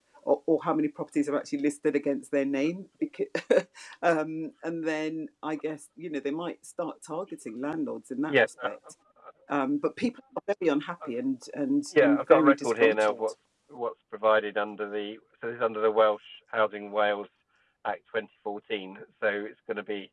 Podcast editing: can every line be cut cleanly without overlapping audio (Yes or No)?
No